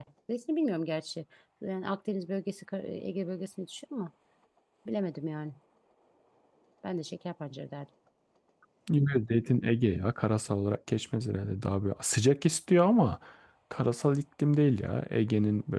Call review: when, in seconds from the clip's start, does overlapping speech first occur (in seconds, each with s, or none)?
none